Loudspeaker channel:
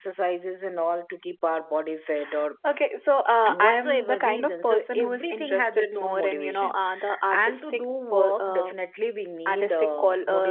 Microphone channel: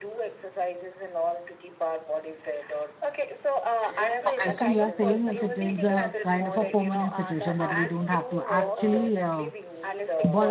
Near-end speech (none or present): present